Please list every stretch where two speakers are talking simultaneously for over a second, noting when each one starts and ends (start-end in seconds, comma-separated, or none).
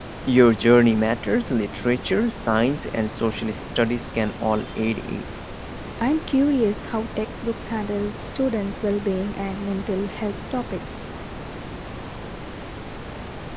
none